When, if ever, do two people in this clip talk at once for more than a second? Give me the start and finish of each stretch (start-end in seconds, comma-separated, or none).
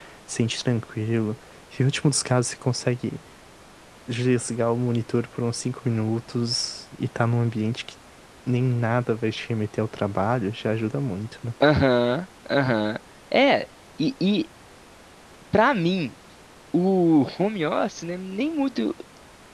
none